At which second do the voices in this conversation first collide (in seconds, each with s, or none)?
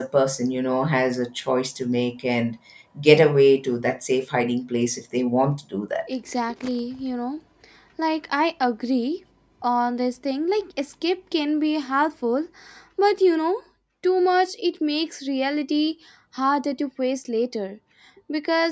none